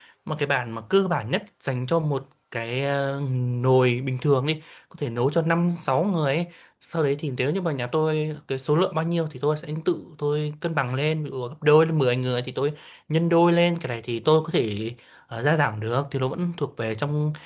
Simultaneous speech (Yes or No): No